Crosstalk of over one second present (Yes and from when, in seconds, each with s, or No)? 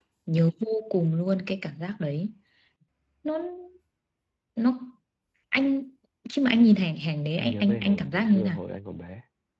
Yes, from 7.4 s